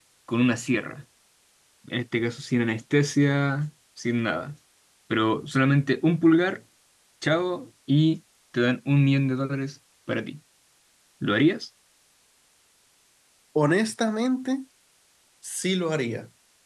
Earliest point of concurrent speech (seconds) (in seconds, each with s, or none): none